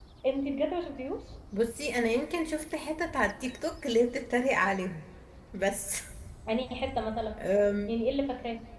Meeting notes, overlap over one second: none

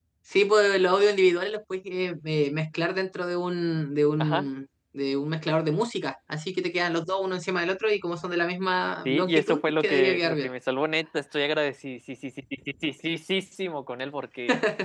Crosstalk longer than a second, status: present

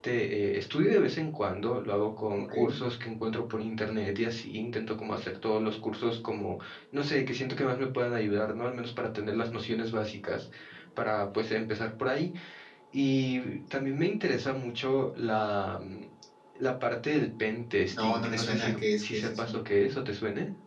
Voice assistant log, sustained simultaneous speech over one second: present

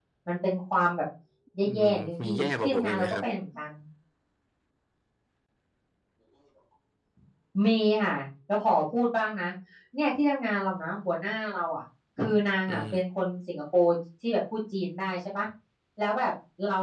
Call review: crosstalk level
present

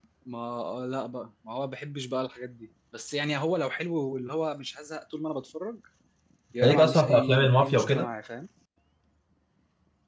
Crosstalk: present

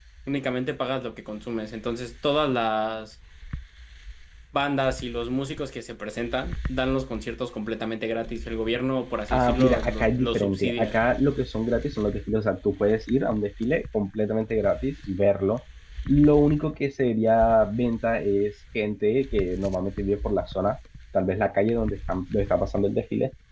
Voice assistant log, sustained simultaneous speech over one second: present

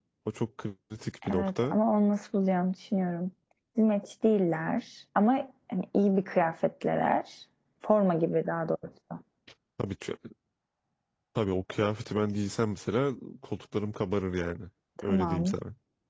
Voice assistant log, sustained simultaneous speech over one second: none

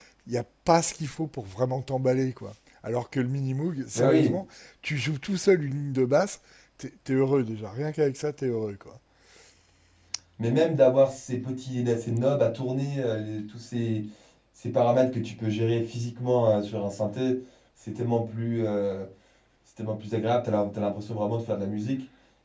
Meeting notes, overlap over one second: none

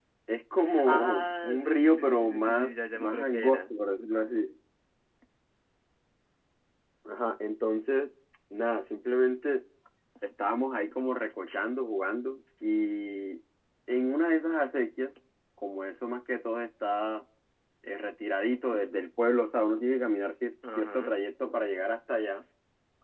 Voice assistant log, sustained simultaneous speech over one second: present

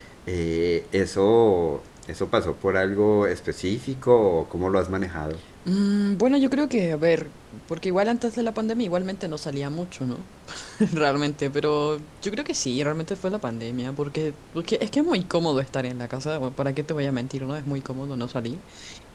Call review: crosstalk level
none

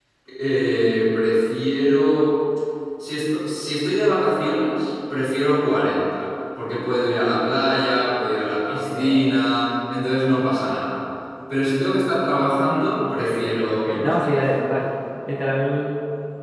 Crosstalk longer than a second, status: present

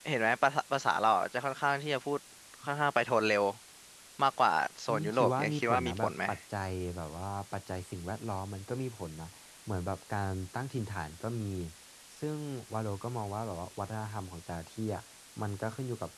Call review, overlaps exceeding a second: present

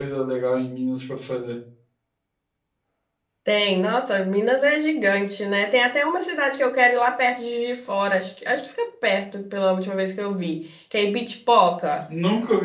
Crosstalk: none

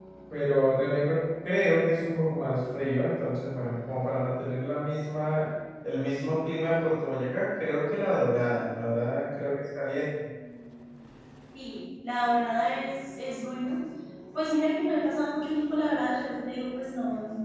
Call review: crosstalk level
none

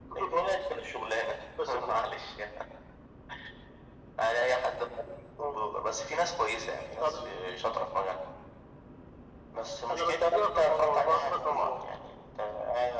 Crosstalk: present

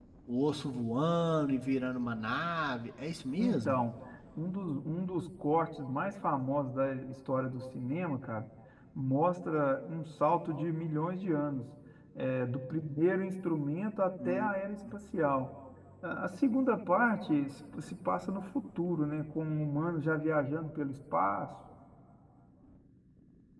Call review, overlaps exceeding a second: none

